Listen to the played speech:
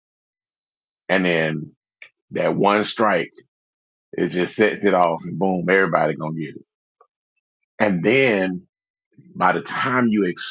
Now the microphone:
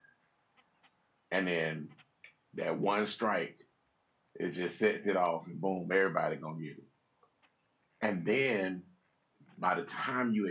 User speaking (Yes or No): No